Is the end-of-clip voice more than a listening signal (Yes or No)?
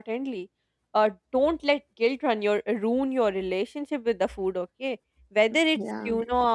No